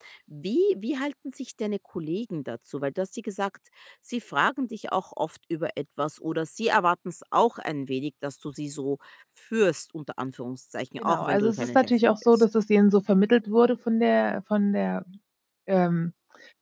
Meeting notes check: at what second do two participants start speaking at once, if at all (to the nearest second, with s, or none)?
11 s